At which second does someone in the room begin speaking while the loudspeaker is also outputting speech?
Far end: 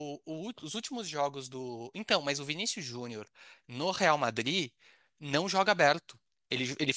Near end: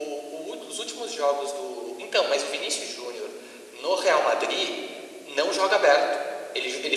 none

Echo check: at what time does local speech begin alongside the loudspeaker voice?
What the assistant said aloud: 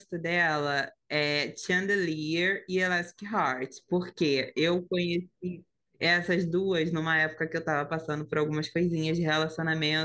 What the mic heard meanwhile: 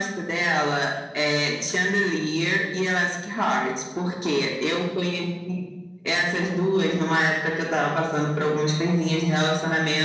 none

